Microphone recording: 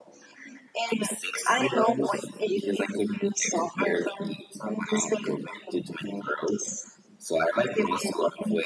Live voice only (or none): none